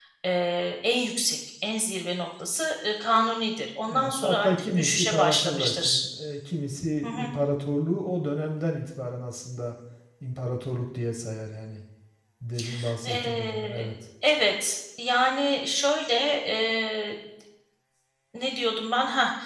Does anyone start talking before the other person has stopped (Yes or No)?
Yes